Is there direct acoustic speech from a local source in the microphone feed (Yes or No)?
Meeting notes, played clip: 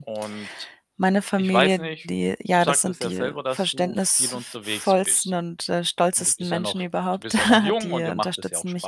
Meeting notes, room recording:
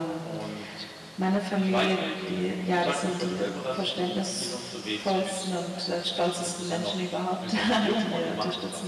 No